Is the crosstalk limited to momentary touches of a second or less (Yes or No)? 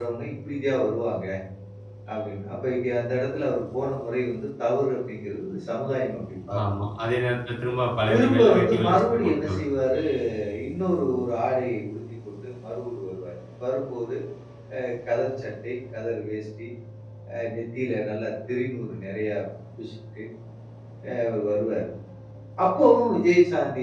No